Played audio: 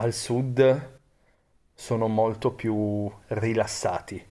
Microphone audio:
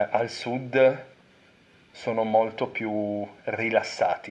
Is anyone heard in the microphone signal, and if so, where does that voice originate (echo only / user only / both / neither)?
echo only